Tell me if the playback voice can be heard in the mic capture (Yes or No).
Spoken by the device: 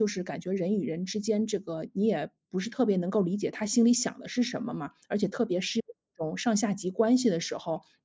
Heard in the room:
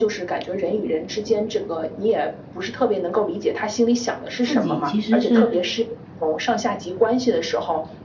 Yes